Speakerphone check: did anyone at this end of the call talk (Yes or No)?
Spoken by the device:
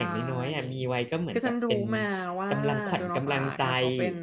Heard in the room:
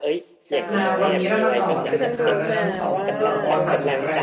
Yes